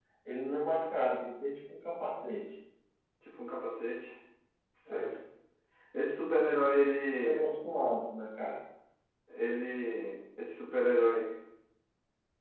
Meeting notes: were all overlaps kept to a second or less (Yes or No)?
Yes